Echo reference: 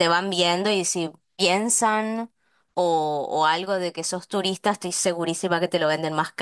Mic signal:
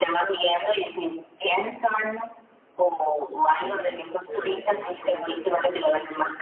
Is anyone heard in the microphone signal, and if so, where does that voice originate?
both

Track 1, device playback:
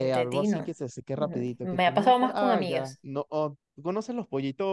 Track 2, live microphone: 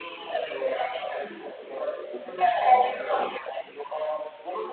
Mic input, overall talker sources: echo only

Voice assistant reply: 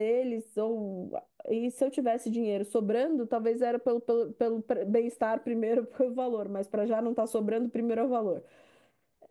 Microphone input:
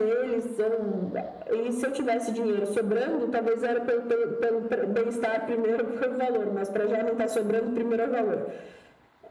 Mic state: echo only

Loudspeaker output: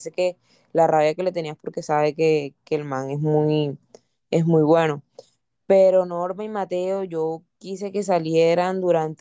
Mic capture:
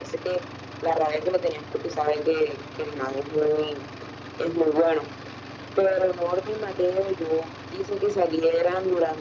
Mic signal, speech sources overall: echo only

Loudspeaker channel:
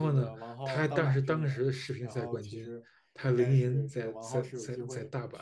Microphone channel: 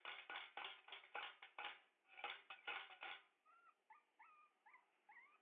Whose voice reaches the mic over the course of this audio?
neither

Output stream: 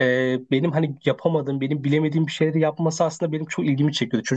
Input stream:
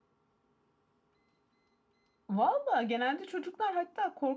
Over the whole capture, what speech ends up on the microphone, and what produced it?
user only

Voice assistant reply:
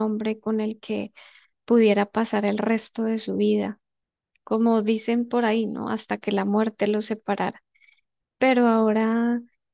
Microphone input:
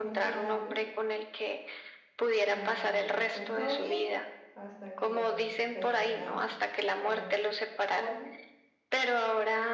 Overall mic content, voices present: both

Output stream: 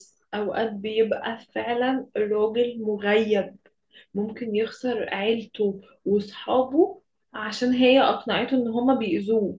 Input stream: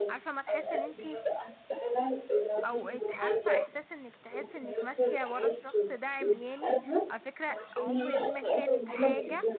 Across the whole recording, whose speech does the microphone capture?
both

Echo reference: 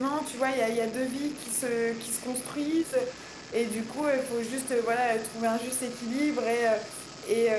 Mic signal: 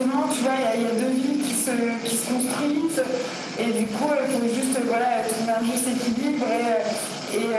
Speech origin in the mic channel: echo only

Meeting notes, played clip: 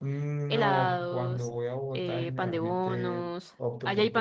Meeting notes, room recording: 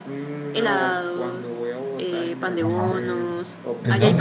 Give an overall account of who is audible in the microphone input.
both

